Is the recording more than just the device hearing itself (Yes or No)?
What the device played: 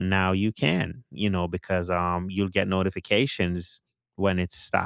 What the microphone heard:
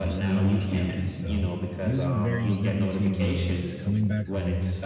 Yes